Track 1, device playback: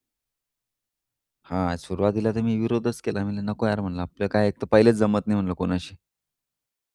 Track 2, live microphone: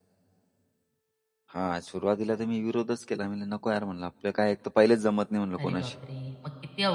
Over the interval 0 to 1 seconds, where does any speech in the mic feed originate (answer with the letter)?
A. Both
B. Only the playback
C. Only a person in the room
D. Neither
D